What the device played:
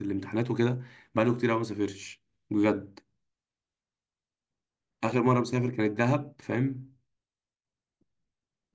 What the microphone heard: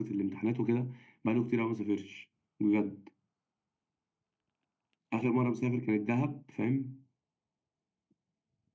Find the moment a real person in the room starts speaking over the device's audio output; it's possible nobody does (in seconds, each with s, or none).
none